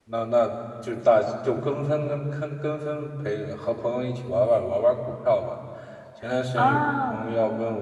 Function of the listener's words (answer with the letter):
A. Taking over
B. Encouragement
B